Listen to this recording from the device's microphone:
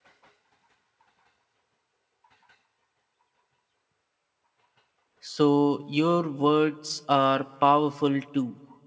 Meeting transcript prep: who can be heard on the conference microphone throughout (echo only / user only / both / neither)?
user only